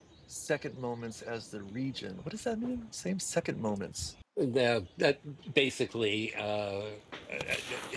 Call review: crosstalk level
none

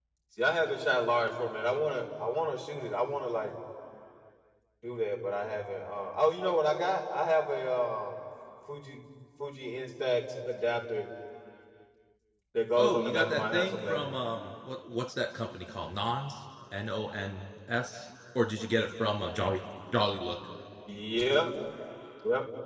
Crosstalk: present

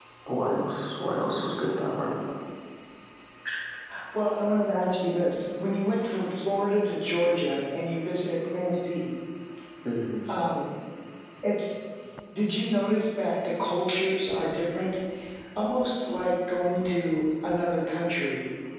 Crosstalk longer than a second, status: none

